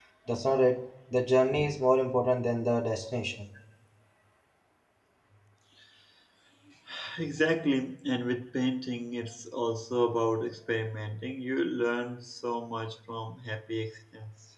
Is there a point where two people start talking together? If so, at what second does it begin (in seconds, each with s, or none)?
none